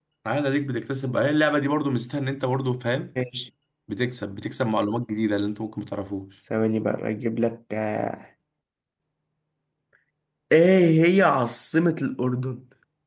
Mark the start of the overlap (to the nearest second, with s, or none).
none